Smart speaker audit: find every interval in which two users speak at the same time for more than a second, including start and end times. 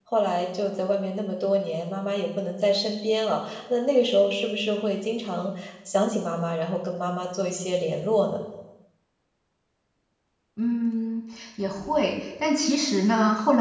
none

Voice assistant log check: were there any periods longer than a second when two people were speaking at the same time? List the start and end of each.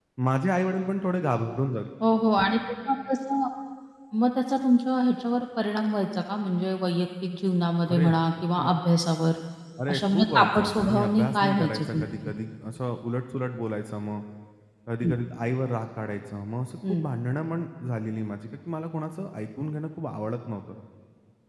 9.9-12.3

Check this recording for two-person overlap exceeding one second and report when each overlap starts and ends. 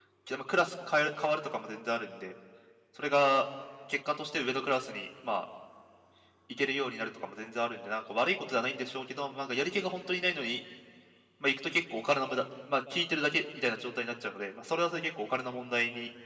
none

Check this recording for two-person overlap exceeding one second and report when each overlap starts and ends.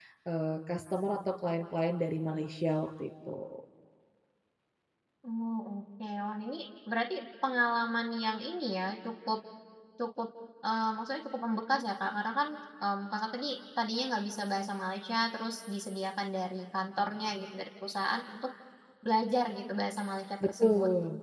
none

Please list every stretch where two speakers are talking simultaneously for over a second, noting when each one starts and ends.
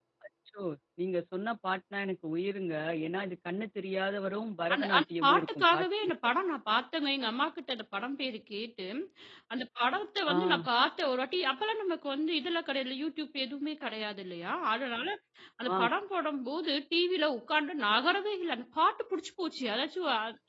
4.7-6.1

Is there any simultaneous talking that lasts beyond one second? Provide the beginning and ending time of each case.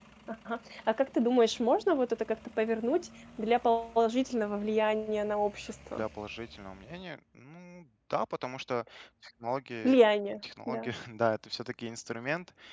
none

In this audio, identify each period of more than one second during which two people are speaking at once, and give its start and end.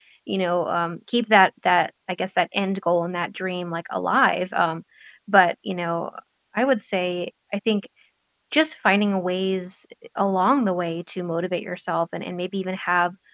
none

